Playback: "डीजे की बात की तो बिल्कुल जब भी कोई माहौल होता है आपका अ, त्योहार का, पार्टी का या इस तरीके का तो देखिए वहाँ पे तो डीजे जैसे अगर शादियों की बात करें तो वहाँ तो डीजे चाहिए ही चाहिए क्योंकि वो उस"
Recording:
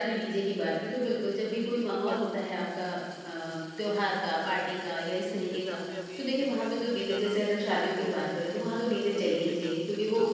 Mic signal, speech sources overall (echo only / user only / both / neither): both